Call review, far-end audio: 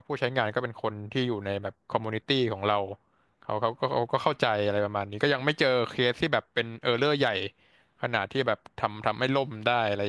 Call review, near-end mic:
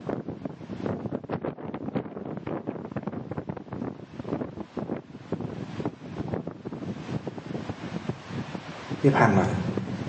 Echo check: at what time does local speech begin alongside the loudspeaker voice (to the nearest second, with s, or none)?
9 s